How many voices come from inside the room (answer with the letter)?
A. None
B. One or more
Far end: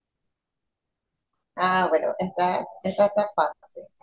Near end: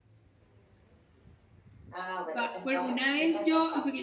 B